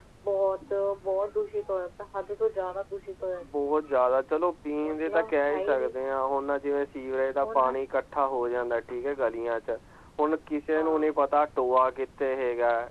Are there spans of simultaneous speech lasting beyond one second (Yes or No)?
No